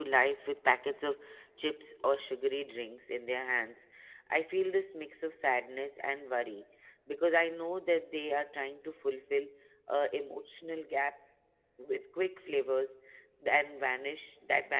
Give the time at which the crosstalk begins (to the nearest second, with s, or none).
none